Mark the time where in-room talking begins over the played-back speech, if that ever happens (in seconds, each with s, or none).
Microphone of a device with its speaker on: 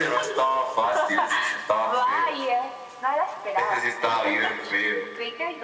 none